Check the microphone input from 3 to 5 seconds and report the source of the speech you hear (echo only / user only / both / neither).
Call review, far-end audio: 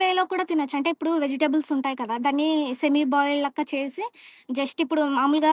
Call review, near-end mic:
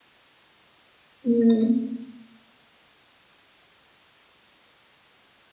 neither